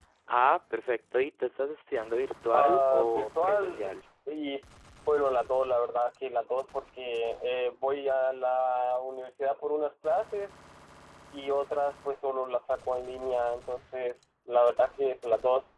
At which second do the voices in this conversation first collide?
2.5 s

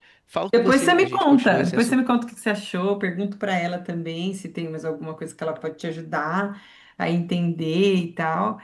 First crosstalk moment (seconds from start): 0.5 s

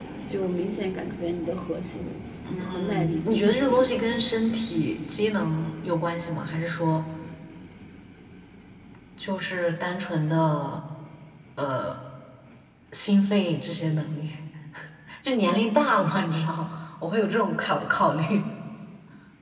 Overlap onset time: 2.6 s

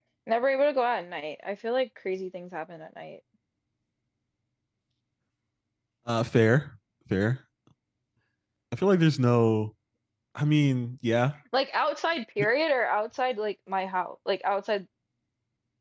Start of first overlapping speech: none

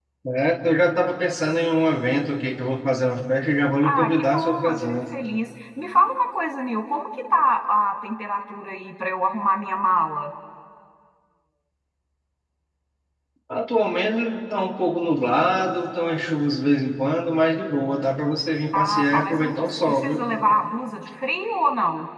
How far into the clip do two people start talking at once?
3.8 s

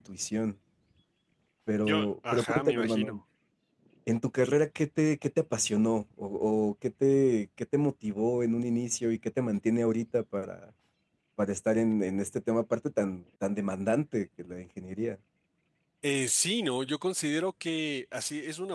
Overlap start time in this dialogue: 1.9 s

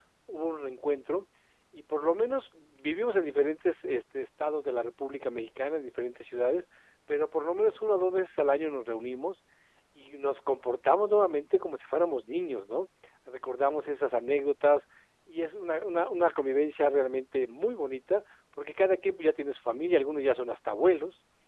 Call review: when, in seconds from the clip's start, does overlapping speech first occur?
none

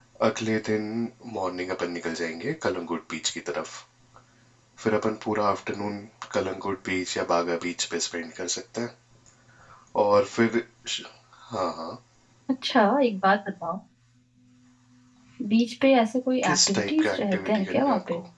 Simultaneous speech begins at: 16.4 s

